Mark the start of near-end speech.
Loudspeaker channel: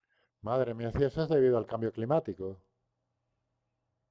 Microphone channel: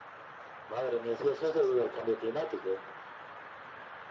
none

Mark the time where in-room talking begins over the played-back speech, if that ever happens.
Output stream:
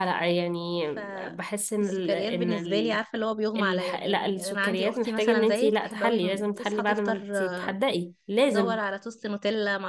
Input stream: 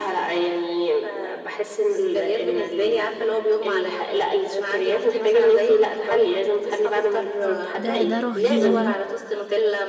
7 s

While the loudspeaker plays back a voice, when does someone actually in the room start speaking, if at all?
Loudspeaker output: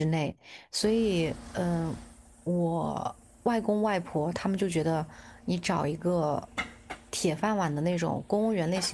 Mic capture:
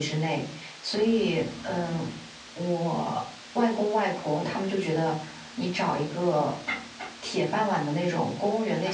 none

